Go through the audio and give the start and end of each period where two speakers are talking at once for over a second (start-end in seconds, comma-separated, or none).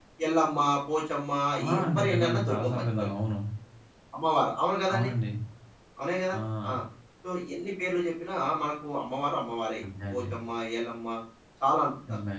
1.8-3.1